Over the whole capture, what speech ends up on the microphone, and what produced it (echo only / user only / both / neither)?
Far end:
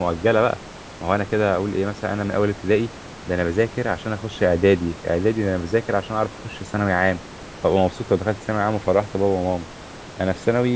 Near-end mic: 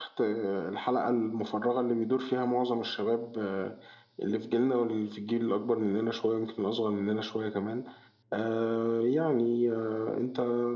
user only